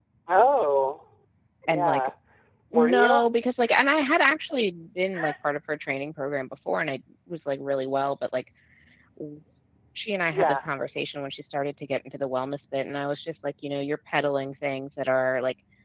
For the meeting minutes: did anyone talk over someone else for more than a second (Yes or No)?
No